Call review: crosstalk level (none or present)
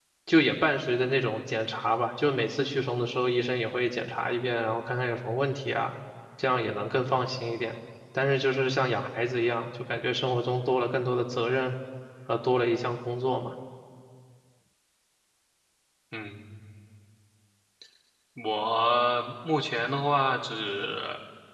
none